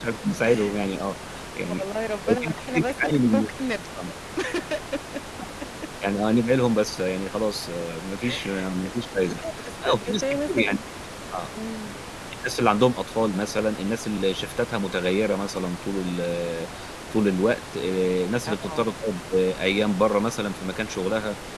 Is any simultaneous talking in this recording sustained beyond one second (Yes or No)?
Yes